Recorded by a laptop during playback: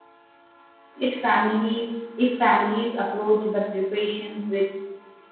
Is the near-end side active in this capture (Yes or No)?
Yes